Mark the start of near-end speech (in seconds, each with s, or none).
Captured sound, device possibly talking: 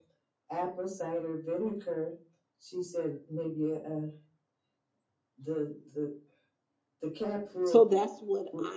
7.6 s